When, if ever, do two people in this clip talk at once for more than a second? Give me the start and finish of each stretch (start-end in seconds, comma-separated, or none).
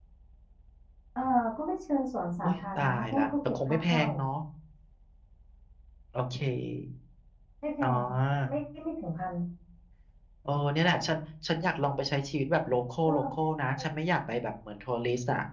2.4-4.0